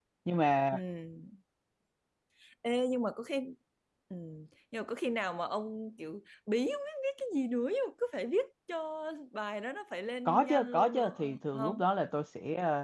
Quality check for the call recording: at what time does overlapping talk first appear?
10.2 s

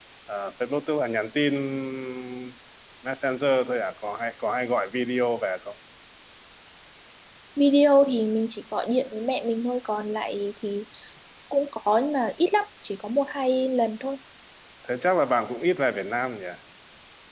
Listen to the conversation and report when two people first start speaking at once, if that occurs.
none

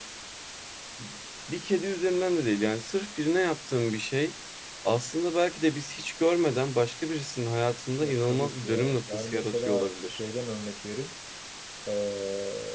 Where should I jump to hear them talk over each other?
8.0 s

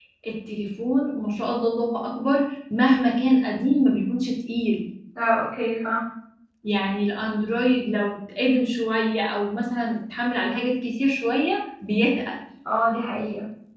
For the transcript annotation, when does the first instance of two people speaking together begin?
none

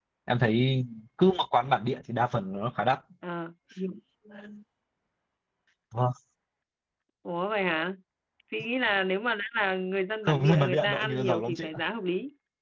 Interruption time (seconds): 10.2 s

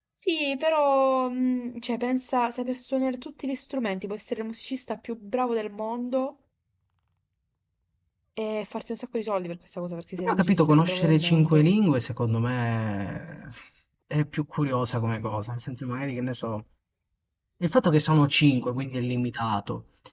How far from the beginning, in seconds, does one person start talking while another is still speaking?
10.2 s

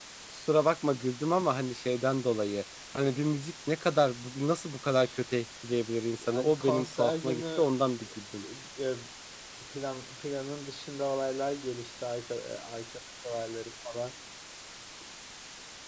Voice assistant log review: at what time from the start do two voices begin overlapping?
6.2 s

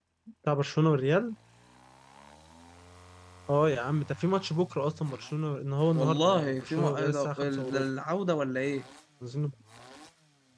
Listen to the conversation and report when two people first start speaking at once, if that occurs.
6.0 s

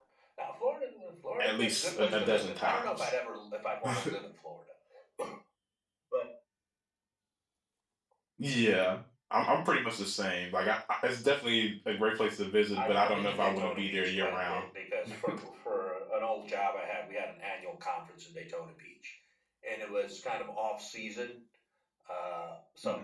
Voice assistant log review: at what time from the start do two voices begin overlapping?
1.4 s

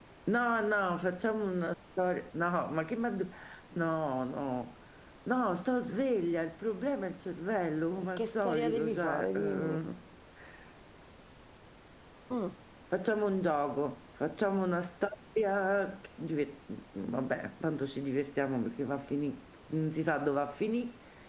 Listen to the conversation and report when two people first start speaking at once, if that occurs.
8.0 s

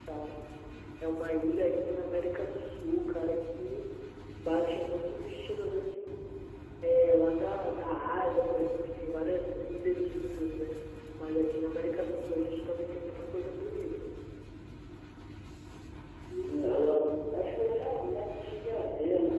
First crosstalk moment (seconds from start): none

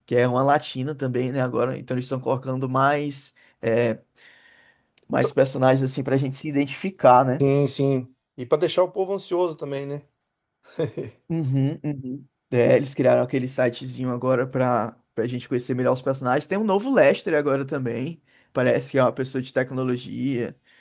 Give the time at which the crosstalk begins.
none

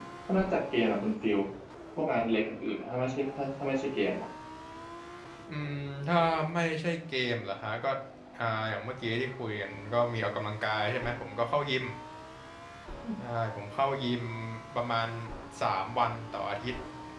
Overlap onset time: none

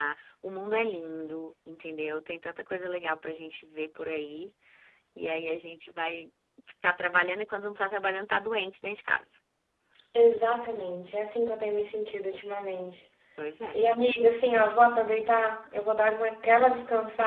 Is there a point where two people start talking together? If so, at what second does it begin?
none

